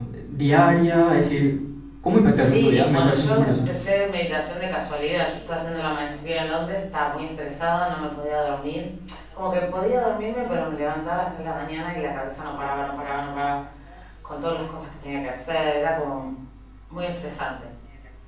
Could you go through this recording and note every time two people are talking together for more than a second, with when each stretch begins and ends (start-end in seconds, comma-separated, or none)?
2.3-3.7